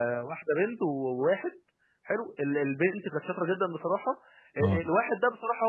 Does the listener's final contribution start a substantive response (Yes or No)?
No